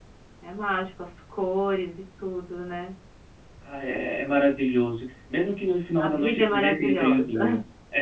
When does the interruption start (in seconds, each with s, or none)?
6.0 s